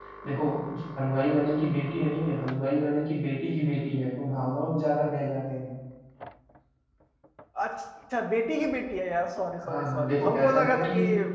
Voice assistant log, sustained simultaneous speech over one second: present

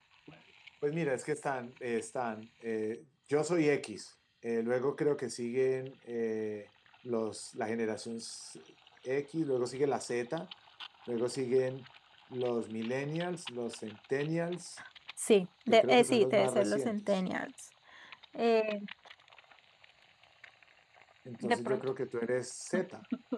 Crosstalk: present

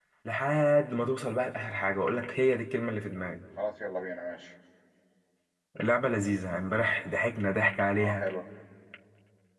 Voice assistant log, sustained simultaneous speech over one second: none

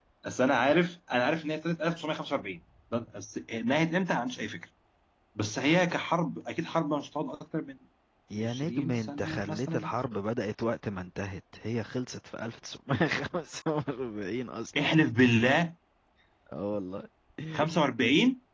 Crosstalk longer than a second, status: present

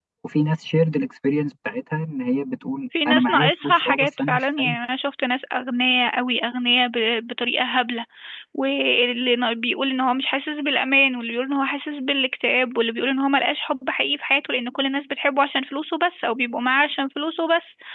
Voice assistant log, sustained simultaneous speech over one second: present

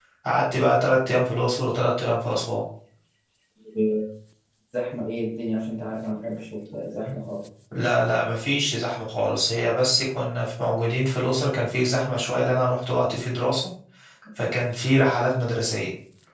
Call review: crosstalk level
none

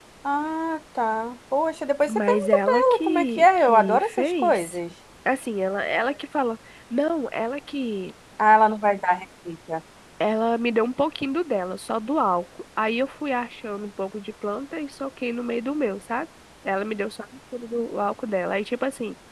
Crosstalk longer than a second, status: present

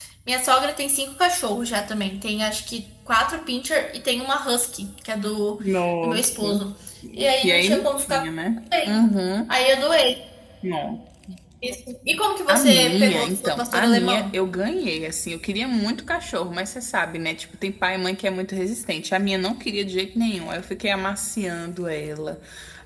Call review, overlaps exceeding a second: present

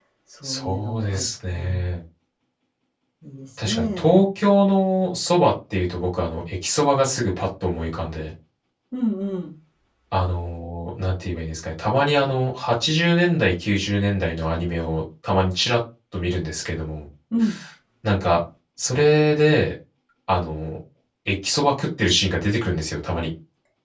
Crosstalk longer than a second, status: present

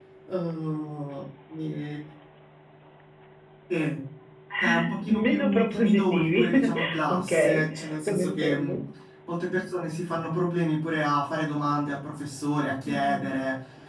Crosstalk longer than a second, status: present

